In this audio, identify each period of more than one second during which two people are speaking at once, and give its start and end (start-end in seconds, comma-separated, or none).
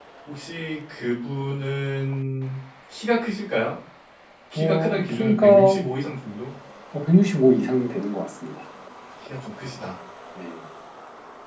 4.5-5.9